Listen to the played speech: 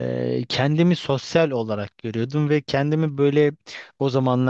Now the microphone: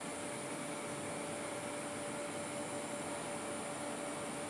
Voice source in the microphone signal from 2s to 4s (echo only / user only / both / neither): neither